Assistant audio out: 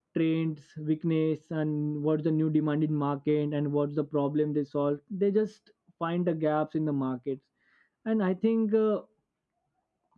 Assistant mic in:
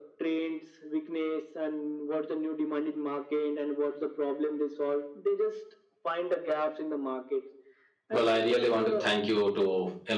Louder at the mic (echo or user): user